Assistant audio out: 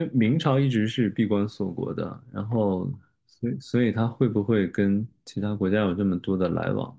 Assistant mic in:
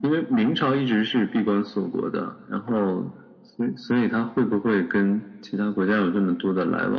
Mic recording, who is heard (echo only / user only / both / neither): echo only